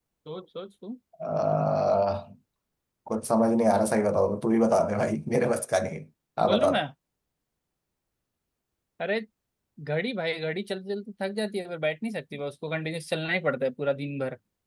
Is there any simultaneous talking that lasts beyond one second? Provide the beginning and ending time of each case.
none

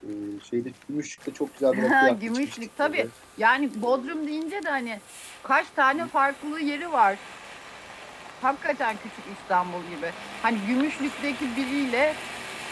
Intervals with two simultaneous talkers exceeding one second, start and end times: 1.7-3.0

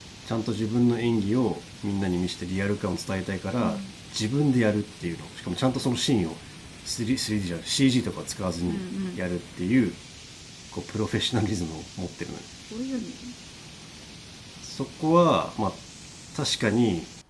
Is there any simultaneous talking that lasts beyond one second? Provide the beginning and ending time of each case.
none

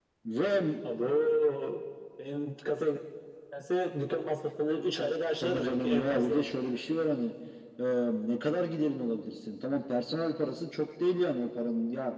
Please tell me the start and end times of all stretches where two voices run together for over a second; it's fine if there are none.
5.0-6.4

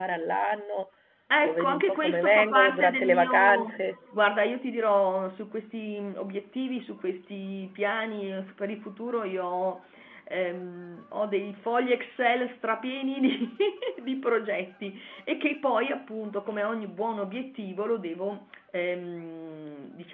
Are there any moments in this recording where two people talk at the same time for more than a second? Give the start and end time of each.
1.4-3.8

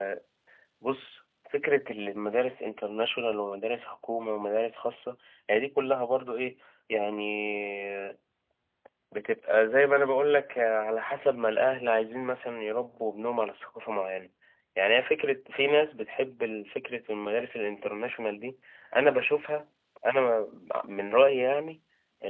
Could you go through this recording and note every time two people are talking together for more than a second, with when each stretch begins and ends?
none

